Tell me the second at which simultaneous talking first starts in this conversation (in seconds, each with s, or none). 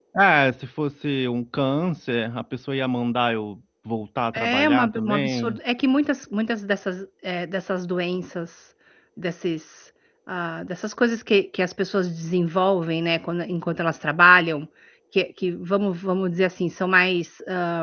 4.3 s